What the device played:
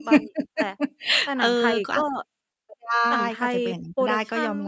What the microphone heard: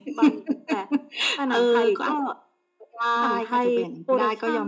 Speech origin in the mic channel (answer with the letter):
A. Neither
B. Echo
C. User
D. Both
B